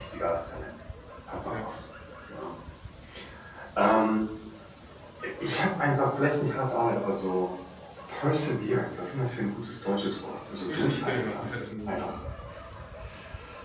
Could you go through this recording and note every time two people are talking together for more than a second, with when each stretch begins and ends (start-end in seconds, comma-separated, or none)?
10.7-12.0